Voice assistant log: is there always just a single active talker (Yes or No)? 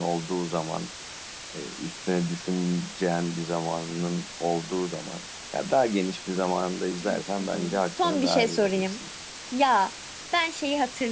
No